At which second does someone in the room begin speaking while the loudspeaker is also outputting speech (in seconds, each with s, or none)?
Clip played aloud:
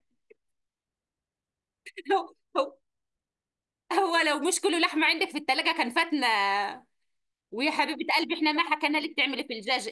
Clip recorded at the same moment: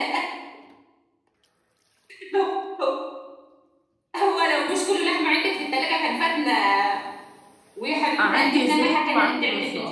8.2 s